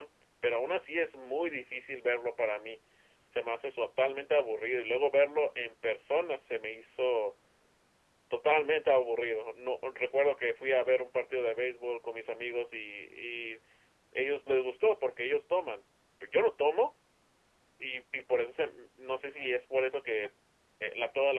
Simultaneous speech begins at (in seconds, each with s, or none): none